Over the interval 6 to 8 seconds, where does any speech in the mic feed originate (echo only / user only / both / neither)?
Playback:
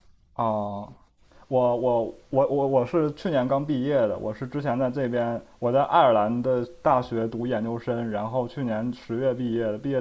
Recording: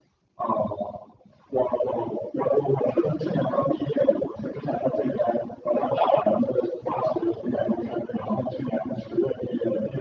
echo only